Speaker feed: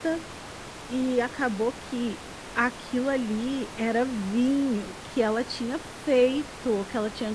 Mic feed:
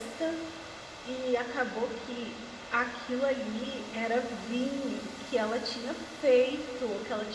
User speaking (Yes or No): No